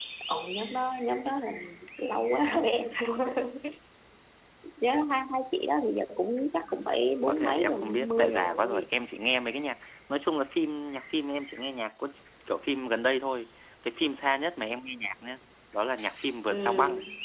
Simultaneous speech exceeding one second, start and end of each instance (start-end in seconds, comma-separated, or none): 7.3-8.9